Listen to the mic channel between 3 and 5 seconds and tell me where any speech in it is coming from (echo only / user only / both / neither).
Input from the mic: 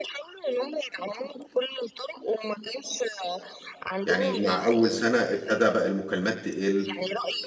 both